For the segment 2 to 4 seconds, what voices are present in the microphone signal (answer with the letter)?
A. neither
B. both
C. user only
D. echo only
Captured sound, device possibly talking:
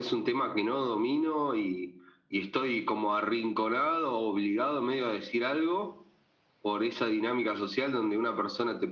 D